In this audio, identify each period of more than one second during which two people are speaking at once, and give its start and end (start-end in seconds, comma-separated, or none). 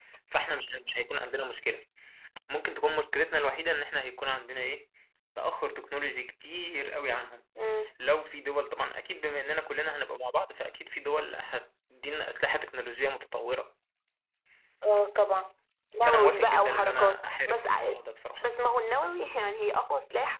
16.0-18.0